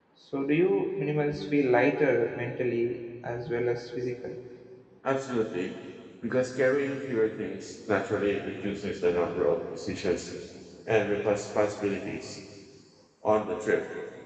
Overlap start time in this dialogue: none

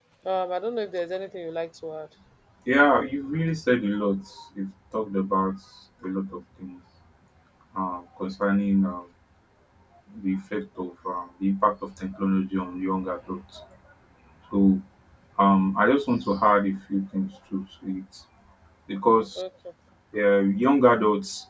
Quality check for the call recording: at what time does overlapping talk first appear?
none

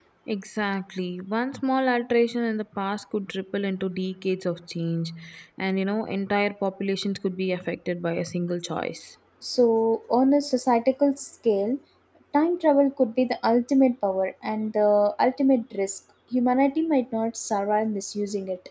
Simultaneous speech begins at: none

